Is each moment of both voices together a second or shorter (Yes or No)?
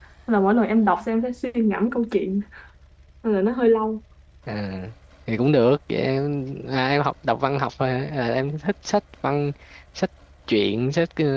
Yes